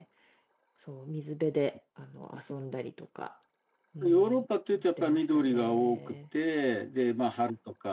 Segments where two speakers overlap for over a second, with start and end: 5.0-6.2

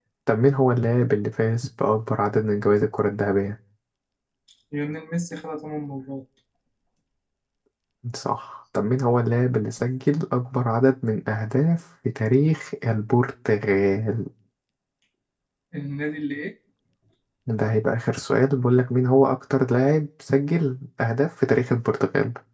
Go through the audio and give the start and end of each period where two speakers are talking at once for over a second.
none

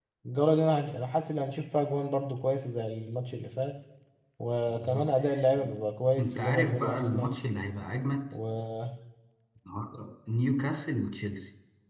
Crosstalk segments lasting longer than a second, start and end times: 6.2-7.4

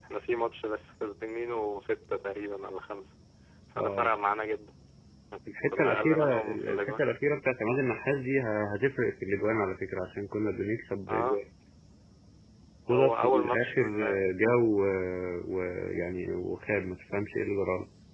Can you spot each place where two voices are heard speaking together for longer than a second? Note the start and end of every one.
5.7-7.0, 12.9-14.2

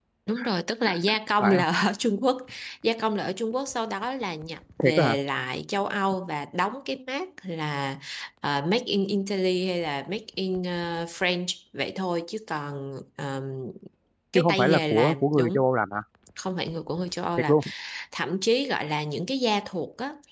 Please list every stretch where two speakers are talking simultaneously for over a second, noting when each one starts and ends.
14.4-15.6

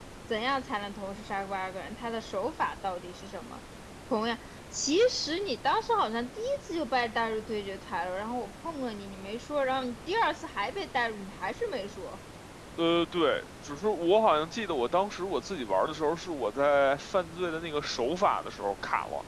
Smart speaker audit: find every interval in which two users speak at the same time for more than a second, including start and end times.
none

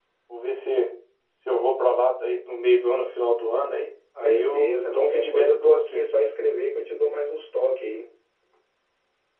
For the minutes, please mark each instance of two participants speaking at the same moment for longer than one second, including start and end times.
4.2-6.0

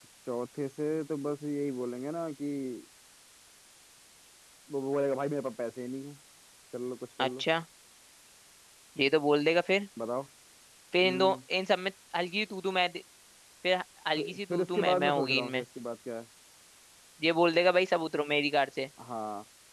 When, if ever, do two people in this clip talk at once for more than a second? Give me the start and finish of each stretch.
14.2-15.6

